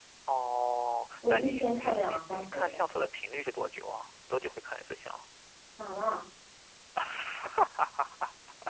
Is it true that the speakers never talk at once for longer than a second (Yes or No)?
No